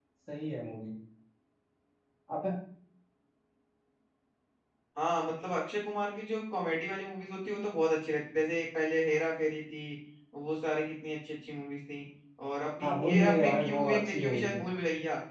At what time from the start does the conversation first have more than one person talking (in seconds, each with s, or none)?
12.8 s